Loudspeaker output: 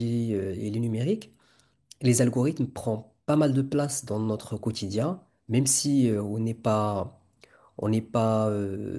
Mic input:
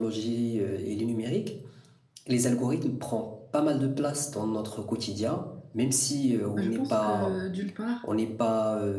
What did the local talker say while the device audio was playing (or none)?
Moi, Je pense que d'une part,